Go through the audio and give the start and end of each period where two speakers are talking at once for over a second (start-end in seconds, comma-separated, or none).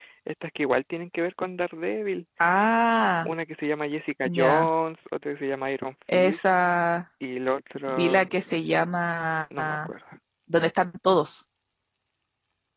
none